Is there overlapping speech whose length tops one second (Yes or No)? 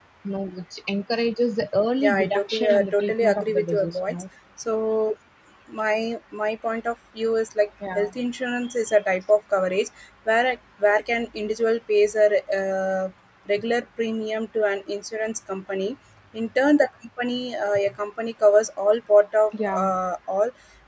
Yes